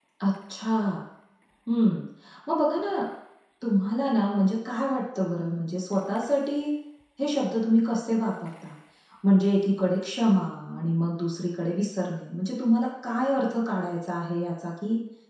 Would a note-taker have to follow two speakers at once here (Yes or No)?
No